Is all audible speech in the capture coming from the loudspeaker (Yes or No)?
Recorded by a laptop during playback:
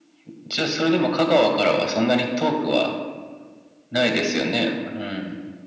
Yes